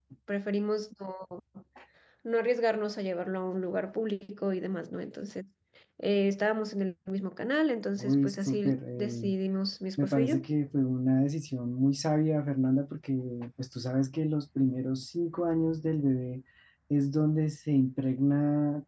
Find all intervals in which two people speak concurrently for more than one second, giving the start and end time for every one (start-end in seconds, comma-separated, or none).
8.0-9.3